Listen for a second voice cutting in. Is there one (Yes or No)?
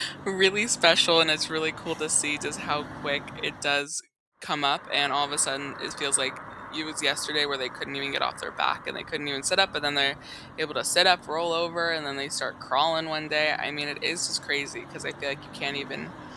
No